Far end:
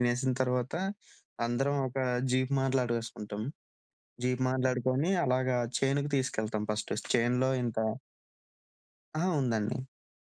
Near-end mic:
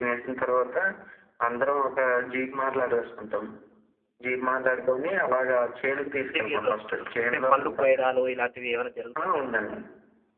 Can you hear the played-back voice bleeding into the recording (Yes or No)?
Yes